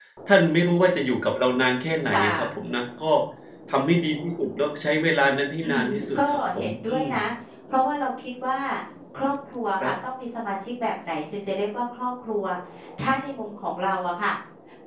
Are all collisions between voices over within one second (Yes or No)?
No